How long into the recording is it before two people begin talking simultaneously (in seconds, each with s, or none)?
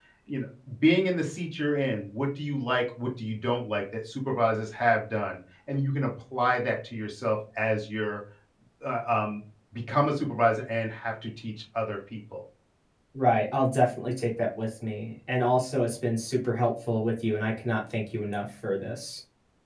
none